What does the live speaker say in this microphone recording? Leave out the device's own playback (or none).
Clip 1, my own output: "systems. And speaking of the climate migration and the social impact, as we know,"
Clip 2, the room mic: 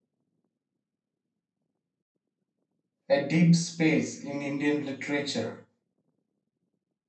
a deep space in Indian literature,